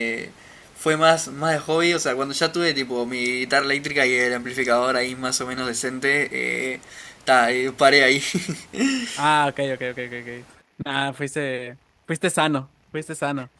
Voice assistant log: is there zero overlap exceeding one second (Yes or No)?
Yes